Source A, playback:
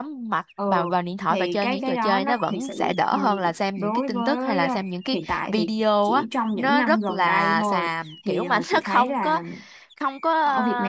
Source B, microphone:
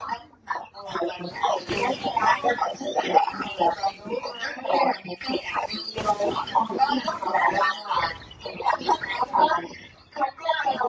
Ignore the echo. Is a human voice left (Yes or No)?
No